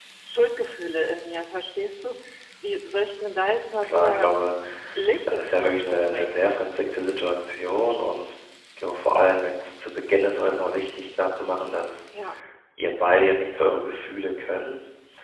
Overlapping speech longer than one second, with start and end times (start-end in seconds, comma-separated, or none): 5.2-6.5